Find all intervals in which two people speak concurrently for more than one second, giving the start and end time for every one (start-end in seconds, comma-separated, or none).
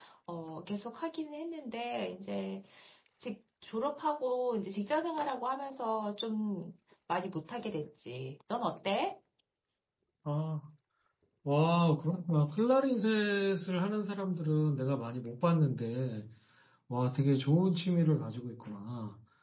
none